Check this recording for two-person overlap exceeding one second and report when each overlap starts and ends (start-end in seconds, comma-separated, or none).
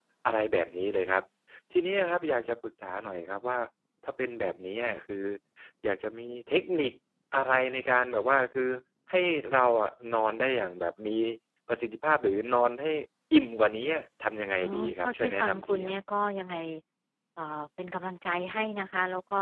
14.6-15.9